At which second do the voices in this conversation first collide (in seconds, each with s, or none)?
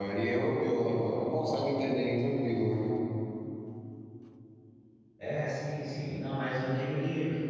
none